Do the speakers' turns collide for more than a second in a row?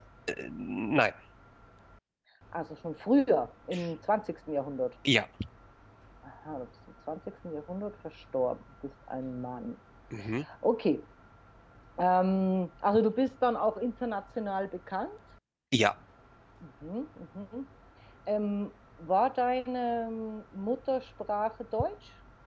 No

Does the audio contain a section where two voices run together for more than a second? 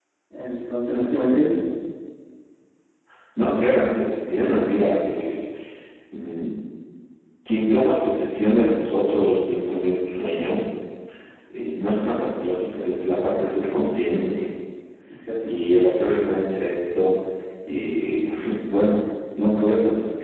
No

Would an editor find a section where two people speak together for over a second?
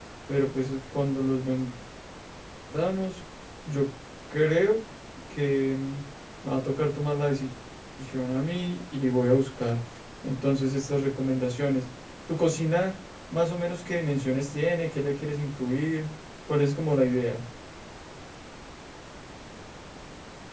No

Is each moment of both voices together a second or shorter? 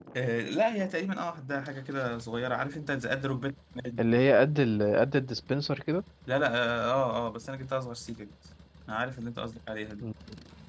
Yes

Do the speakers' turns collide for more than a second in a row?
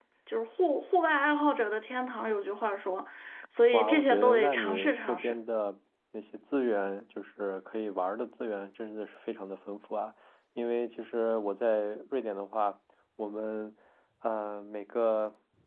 Yes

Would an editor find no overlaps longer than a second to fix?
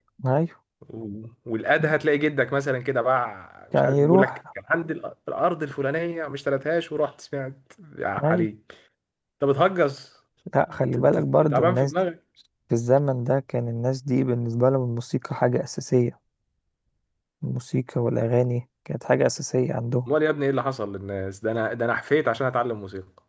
No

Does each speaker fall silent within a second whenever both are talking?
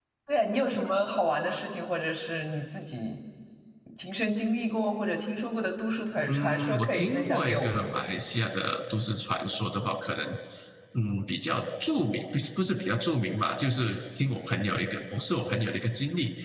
No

